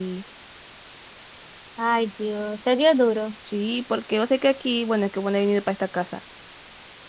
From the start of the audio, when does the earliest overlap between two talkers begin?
none

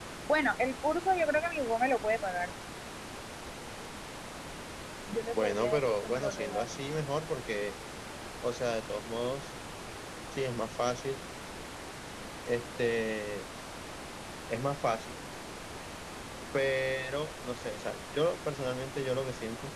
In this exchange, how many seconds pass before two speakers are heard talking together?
5.4 s

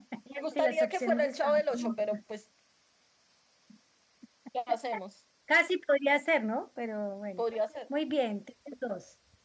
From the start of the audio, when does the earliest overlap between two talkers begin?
0.6 s

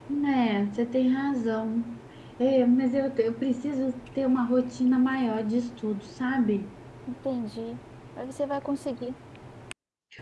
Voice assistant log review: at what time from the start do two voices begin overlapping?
none

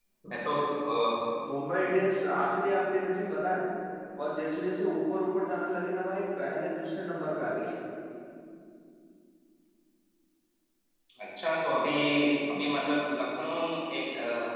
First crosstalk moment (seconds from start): none

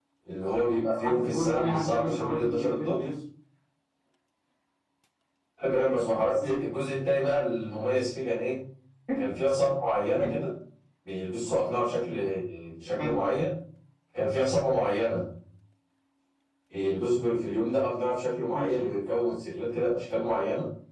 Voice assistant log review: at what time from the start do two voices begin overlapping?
1.0 s

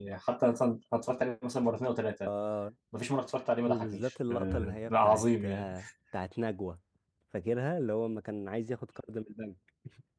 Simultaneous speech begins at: 3.7 s

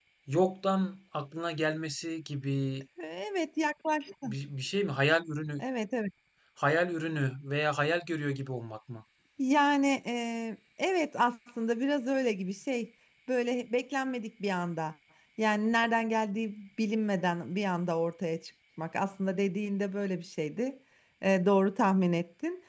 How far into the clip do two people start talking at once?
none

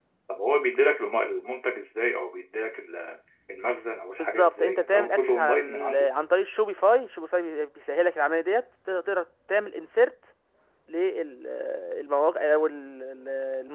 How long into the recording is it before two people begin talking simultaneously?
4.2 s

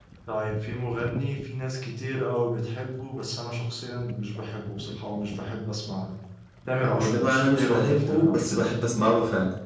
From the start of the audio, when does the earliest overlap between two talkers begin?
6.8 s

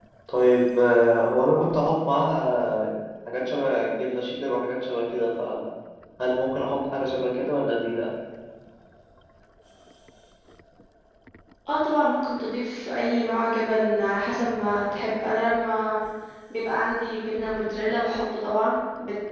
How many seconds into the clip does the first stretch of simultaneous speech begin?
none

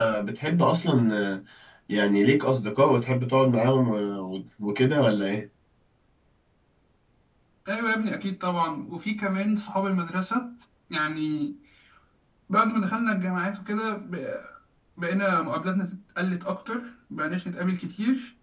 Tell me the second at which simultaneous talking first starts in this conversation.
none

